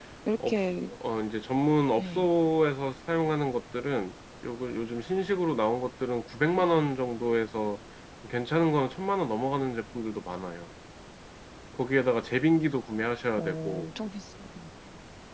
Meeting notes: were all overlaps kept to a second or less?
Yes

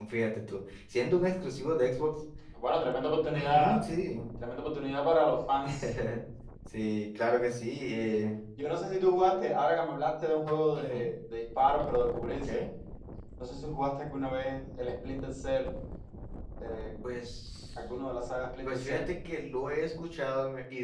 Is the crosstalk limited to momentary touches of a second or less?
Yes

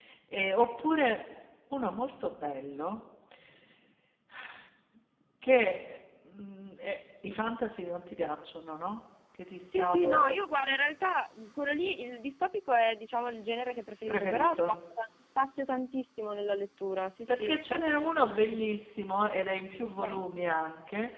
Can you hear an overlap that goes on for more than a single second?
Yes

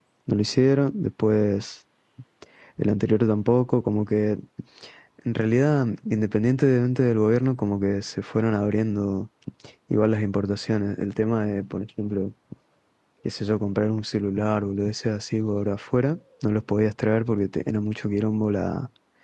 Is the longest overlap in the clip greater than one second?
No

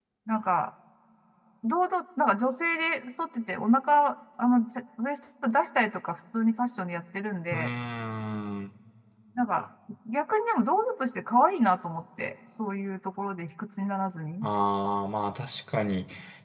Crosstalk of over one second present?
No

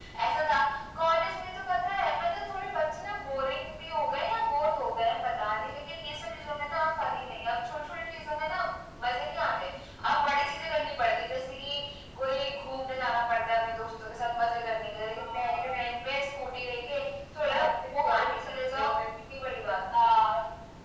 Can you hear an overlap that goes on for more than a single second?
Yes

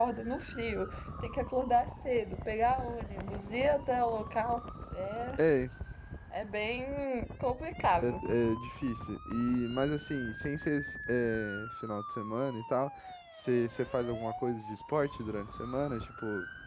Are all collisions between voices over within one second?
Yes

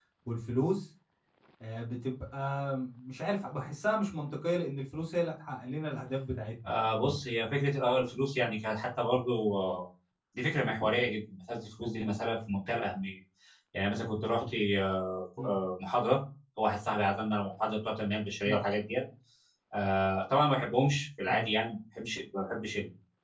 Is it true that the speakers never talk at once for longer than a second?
Yes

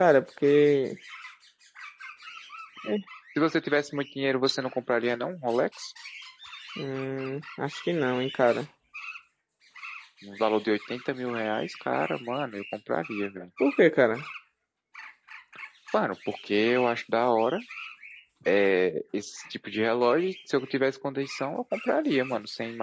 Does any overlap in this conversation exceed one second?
No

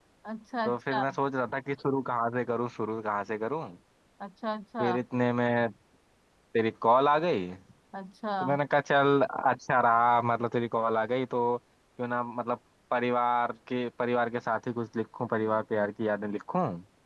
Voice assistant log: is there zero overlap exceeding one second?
Yes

